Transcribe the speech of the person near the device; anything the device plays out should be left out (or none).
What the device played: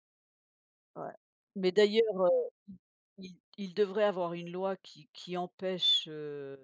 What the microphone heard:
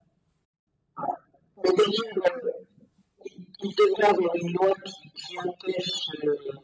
none